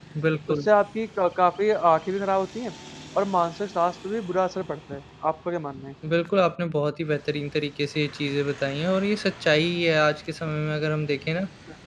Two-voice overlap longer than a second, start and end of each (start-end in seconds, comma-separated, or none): none